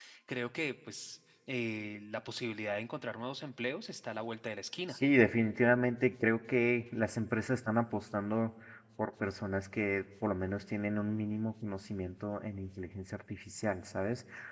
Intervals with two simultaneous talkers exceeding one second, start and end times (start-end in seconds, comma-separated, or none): none